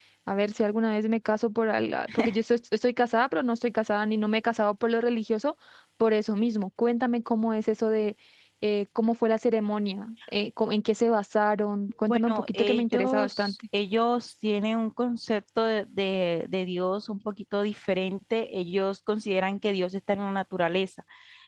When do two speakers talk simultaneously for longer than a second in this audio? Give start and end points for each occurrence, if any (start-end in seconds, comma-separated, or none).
12.1-13.5